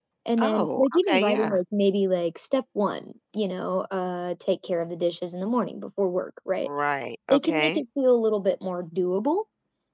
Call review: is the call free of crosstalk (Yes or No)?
No